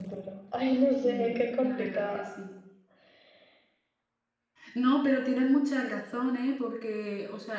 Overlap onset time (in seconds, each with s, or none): 1.0 s